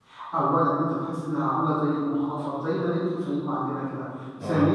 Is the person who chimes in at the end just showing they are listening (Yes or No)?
Yes